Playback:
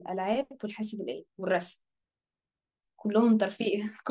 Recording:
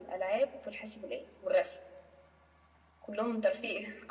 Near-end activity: none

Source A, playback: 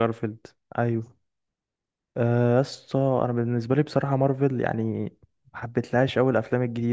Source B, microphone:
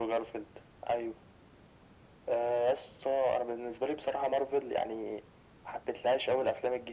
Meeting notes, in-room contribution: none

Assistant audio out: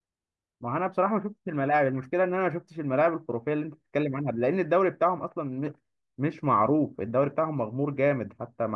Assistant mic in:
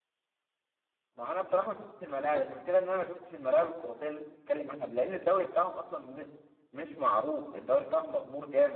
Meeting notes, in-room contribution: none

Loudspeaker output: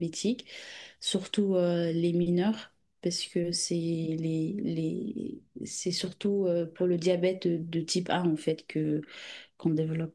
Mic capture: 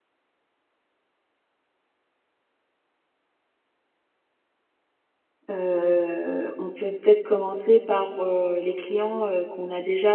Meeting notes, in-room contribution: present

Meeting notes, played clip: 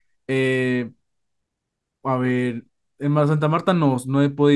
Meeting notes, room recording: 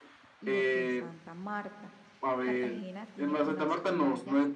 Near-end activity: present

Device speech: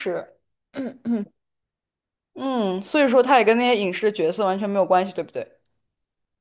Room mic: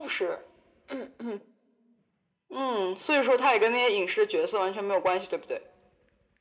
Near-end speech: none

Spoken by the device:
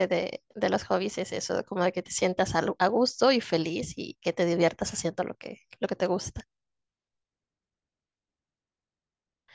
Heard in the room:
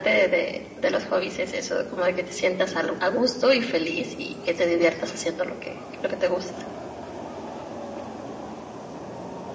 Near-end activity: none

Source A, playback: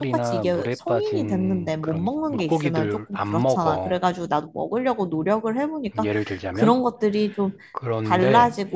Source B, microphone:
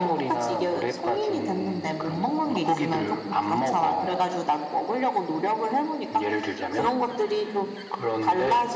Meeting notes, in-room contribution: none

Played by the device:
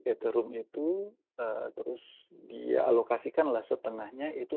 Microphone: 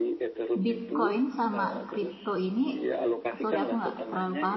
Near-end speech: present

